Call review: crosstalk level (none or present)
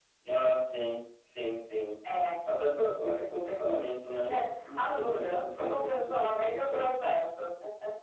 present